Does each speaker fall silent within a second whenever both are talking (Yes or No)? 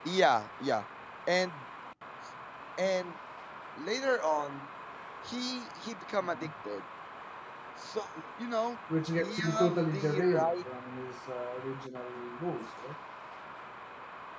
No